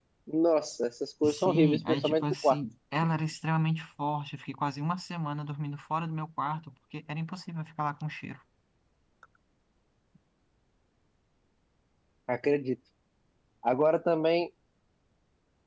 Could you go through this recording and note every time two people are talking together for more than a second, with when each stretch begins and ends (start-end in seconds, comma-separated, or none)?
1.2-2.6